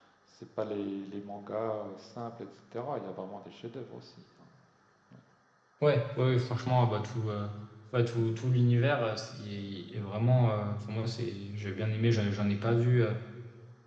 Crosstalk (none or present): none